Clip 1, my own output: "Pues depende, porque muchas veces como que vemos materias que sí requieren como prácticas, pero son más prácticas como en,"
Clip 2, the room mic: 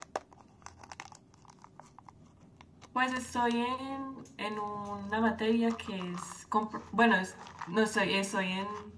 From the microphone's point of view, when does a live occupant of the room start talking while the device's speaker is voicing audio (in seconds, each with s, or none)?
2.9 s